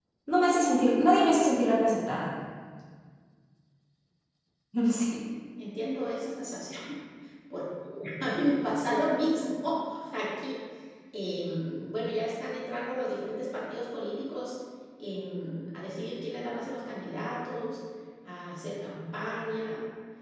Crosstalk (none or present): none